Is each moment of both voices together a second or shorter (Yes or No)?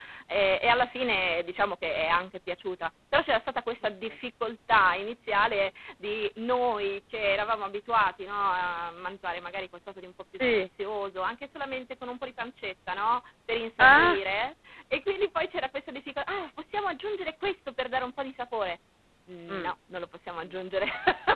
Yes